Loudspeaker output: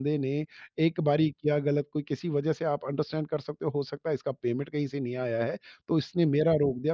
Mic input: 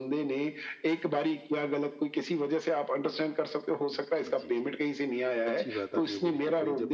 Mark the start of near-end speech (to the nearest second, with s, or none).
4 s